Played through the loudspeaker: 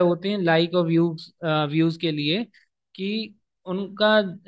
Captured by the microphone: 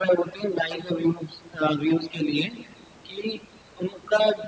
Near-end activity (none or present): none